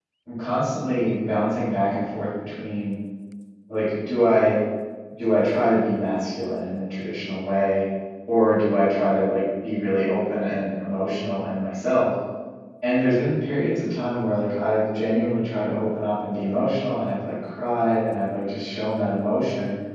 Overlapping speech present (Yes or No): No